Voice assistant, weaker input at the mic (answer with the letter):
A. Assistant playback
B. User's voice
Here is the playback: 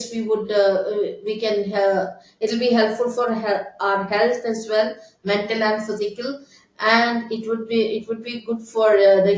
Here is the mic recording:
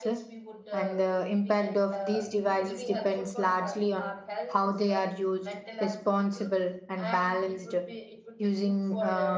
A